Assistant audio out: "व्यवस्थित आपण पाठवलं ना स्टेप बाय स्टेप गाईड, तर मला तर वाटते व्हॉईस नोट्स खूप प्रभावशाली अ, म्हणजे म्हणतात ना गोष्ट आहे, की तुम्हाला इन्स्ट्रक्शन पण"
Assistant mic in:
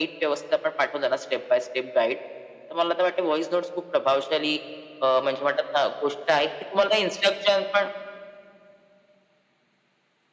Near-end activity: none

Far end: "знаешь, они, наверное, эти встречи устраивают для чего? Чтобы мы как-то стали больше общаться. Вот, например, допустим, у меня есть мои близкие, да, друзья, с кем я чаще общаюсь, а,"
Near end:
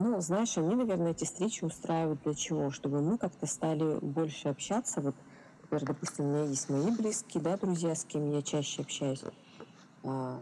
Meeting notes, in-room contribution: none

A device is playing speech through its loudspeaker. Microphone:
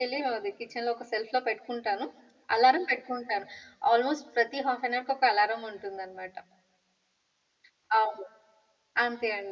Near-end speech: present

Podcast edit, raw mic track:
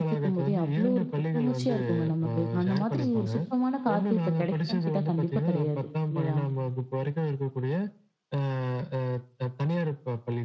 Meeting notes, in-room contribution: present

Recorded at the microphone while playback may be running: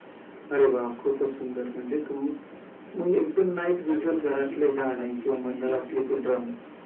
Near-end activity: present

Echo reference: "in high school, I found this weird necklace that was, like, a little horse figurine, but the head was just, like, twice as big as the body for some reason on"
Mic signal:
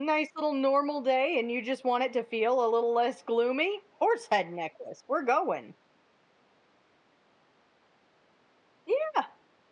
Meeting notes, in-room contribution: present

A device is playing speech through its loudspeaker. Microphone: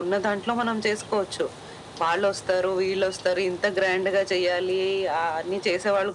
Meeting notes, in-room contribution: none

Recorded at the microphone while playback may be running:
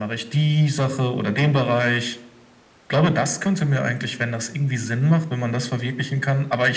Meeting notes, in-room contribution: none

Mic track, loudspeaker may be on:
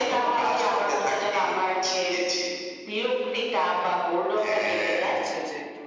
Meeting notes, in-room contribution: present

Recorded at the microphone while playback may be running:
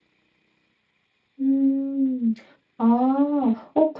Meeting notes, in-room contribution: none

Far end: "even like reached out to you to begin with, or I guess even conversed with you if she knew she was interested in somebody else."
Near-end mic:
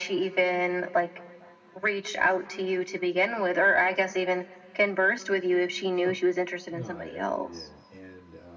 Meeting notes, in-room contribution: present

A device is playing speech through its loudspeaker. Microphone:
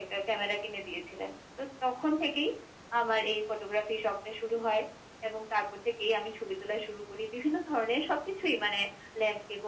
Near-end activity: none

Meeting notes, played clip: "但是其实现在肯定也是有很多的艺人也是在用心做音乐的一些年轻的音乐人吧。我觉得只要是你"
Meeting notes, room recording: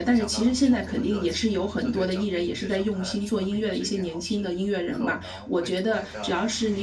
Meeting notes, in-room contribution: present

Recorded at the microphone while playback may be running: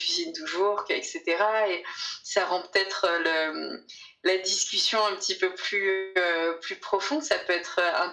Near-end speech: none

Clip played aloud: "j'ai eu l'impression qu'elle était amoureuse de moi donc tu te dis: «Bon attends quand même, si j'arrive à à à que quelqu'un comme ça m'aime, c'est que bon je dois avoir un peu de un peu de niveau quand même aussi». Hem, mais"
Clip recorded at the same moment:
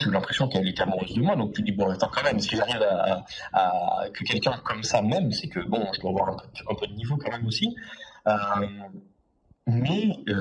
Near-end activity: none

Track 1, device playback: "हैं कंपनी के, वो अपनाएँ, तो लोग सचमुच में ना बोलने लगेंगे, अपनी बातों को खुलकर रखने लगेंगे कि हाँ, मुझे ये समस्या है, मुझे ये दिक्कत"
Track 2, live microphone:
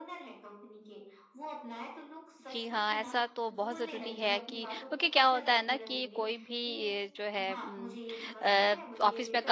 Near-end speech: present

